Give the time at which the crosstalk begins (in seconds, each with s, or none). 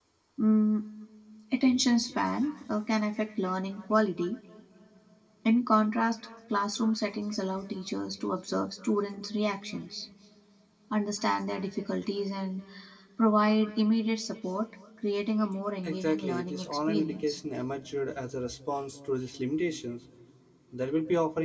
15.8 s